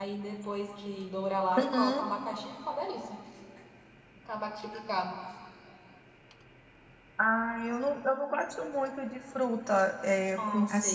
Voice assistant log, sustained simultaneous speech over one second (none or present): none